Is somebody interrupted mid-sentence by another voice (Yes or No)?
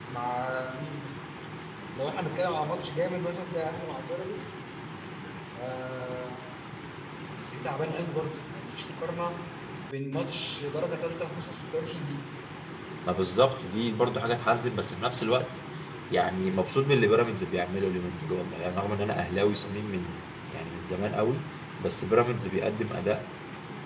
No